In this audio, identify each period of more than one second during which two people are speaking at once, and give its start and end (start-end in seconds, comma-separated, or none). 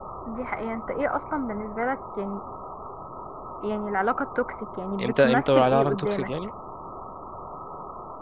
5.0-6.3